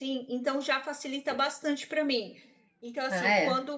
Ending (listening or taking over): listening